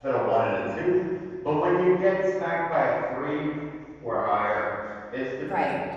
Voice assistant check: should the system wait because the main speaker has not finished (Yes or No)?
No